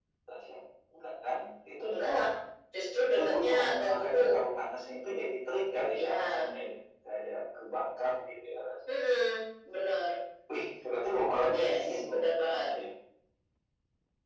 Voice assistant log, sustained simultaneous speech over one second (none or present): present